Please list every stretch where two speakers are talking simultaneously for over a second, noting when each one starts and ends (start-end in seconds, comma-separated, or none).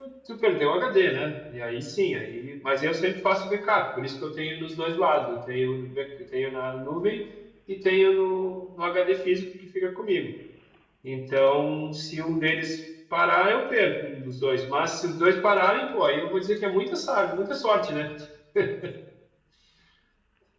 none